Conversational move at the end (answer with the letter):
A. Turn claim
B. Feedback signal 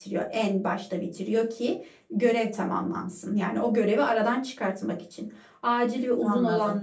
B